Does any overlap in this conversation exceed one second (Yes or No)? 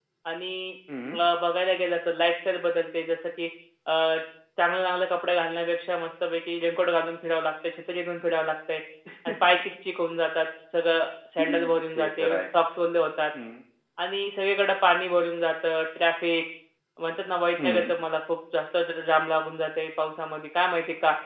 No